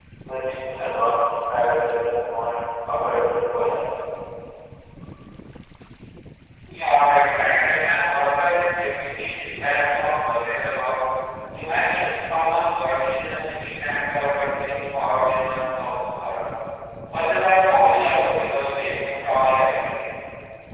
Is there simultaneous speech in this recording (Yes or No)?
No